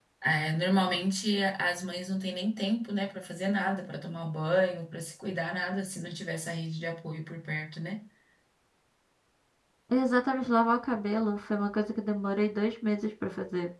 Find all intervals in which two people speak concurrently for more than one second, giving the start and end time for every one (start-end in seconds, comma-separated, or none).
none